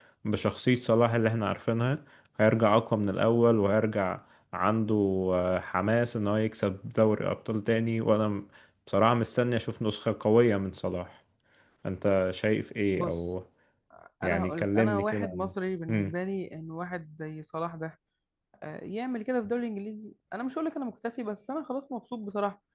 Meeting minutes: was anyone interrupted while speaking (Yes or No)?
Yes